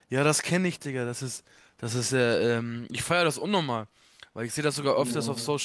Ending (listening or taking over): listening